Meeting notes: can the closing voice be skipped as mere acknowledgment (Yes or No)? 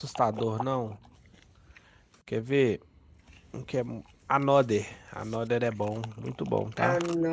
No